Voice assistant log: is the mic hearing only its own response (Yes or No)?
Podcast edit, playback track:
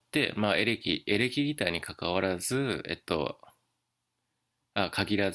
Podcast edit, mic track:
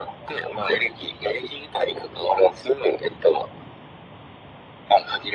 Yes